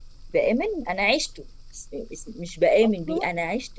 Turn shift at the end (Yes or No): No